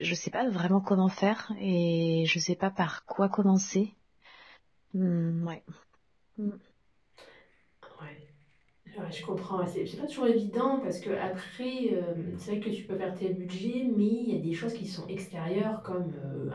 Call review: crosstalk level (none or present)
none